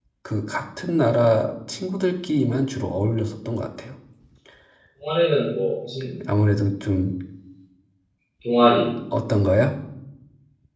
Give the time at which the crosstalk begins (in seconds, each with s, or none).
none